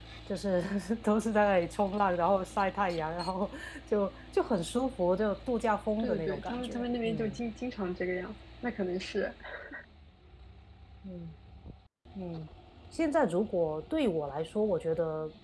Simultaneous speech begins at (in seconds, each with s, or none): 6.0 s